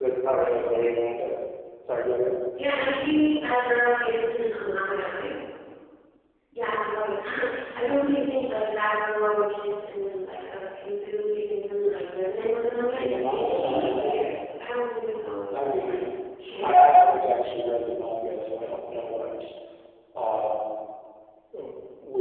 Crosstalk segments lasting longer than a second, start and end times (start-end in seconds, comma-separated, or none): 12.9-14.2